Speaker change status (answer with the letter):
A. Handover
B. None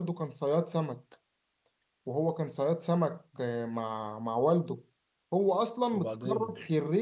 B